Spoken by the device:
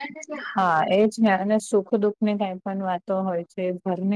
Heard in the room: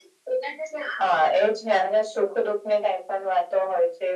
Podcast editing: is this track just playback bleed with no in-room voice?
Yes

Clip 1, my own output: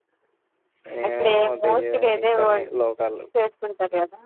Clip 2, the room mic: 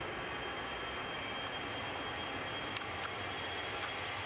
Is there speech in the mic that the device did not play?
No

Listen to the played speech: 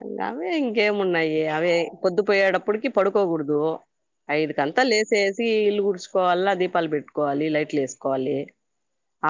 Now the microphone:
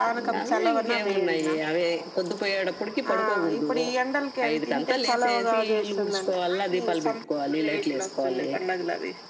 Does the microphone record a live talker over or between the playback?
Yes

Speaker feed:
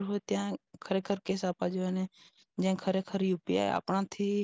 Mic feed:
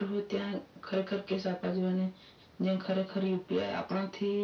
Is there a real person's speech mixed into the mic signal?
No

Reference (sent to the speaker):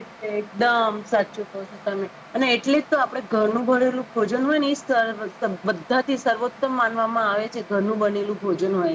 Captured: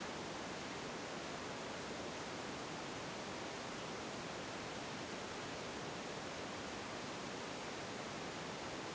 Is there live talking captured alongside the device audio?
No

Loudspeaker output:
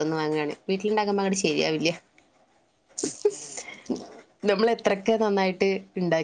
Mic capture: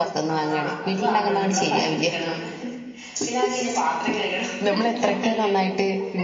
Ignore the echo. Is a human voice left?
Yes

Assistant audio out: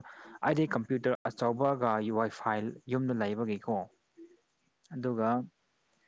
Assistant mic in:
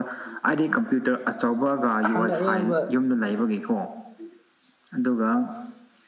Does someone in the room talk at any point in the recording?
Yes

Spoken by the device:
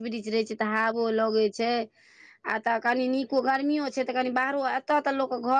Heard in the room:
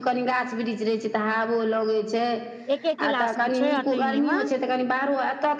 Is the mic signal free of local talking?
No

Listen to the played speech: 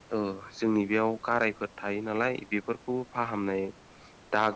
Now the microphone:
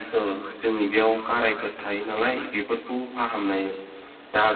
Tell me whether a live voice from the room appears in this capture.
No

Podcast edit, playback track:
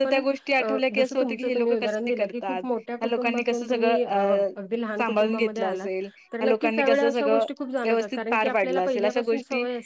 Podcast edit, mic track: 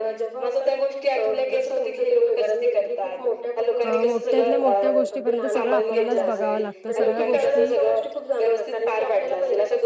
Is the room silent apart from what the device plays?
No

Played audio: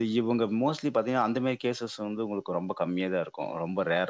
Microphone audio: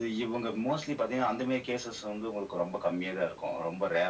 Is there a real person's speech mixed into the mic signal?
No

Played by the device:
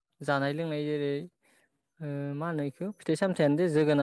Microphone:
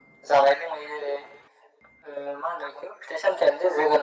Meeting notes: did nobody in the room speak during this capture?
Yes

